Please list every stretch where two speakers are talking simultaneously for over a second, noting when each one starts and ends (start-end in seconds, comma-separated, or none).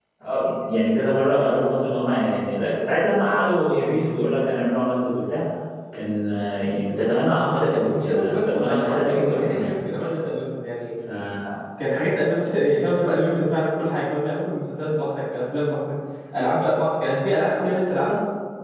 7.8-9.7